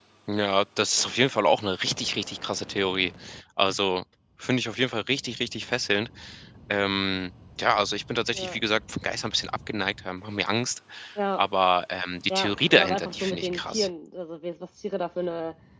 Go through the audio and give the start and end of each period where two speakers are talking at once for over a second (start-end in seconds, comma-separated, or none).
12.3-13.9